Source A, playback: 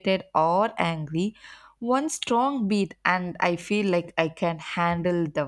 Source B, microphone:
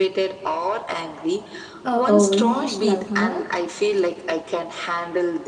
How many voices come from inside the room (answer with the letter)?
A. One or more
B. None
A